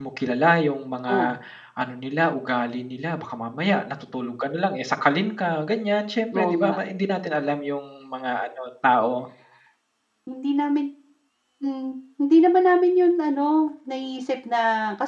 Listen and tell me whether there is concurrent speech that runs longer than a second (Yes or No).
No